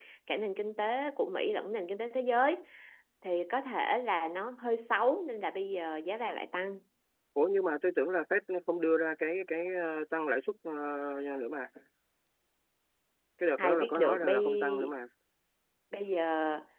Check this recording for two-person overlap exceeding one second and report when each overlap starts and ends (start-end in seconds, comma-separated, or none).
13.6-14.9